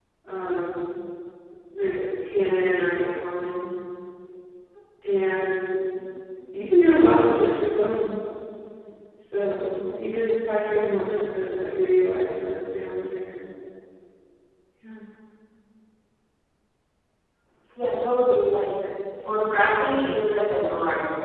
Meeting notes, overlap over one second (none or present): none